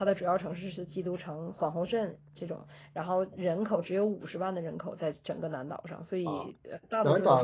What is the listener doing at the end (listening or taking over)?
taking over